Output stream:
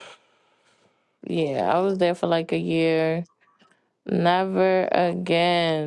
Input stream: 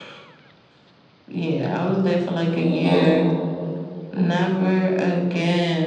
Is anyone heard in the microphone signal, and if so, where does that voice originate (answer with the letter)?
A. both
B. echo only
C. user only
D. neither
A